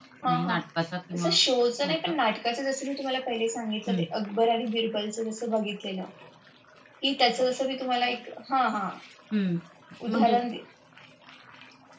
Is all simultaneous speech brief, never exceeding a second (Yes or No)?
Yes